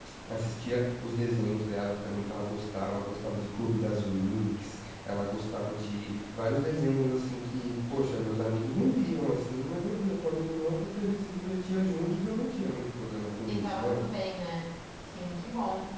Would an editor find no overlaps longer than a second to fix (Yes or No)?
Yes